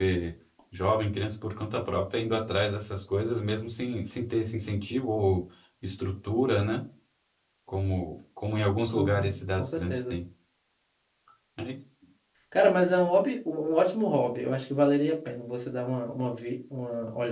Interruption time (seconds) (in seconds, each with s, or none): 8.9 s